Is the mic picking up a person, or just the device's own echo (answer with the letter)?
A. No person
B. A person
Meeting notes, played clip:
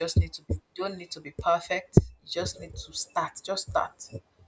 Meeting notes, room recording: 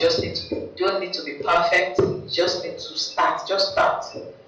A